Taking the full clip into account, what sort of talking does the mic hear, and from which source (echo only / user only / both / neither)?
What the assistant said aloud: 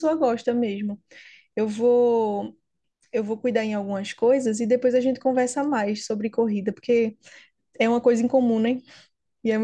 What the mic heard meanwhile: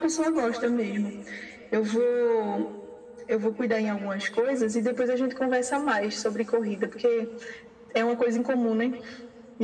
echo only